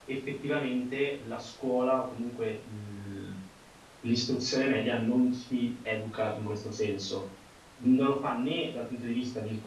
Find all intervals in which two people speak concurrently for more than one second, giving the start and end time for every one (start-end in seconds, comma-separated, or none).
none